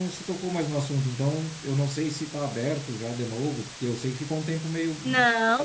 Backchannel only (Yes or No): No